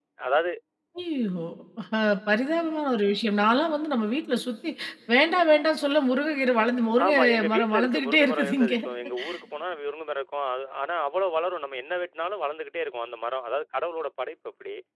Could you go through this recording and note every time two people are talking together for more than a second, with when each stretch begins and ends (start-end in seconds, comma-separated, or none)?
7.0-8.7